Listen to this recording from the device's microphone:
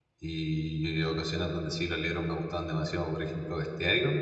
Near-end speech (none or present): present